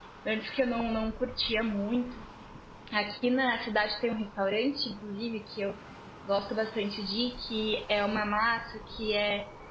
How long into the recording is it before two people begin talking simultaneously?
none

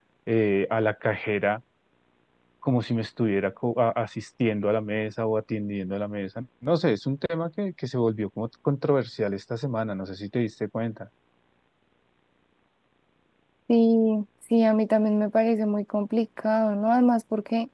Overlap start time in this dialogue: none

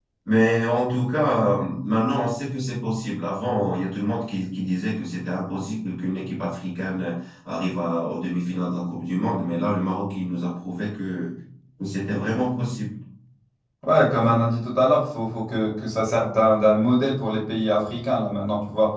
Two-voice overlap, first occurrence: none

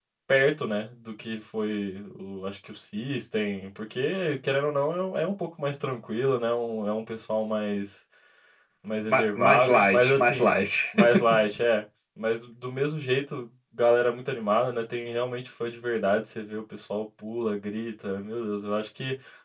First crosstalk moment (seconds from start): 9.1 s

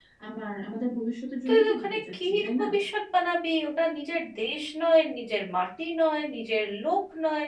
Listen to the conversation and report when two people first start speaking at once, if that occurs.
1.5 s

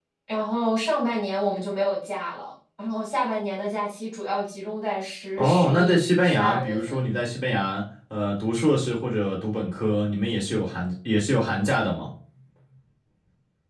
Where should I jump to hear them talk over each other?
5.4 s

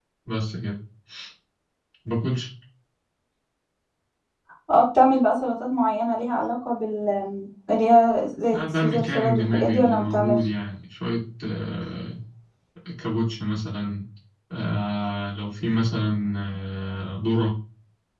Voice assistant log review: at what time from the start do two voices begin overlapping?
8.5 s

